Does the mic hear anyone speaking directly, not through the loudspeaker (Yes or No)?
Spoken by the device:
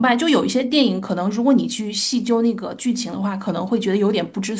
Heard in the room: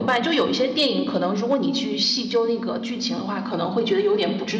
No